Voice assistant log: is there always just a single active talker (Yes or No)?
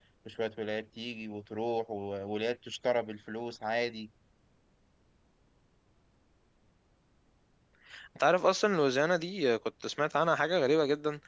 Yes